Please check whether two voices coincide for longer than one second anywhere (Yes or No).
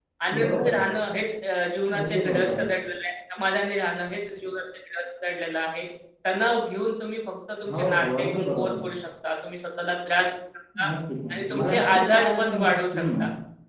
Yes